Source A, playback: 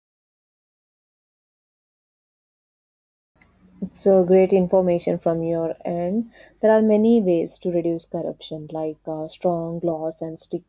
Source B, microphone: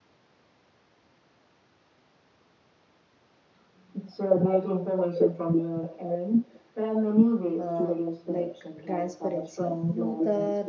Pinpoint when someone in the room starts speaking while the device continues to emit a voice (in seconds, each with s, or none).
7.6 s